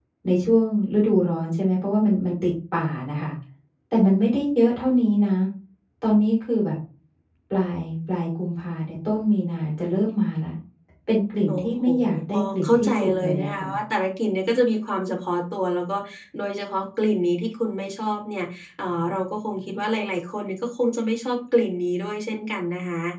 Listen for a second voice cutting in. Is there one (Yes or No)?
Yes